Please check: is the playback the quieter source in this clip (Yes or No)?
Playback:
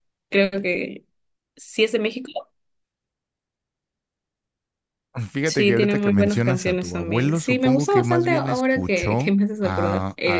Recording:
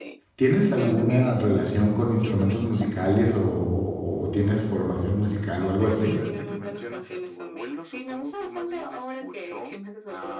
Yes